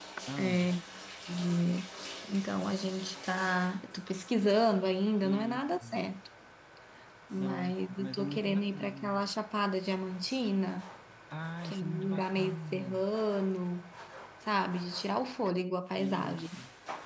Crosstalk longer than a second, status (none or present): present